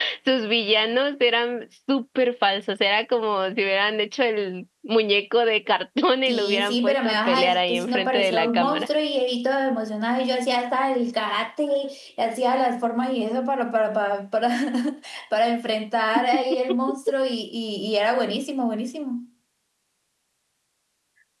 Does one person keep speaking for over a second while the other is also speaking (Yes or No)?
Yes